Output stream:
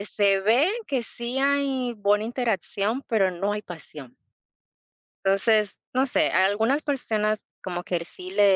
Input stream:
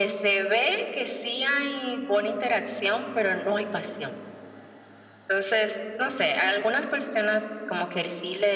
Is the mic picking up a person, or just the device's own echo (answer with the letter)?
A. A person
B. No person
B